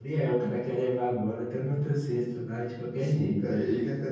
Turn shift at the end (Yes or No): Yes